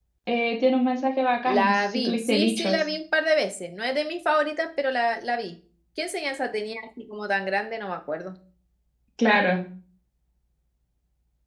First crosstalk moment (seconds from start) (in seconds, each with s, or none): 1.4 s